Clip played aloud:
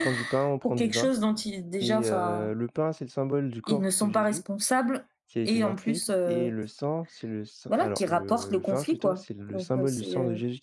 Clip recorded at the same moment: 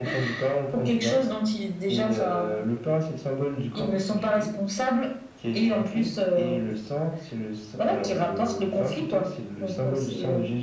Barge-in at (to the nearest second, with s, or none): none